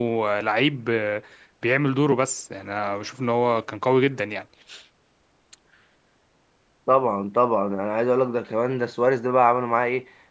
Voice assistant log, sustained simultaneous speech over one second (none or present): none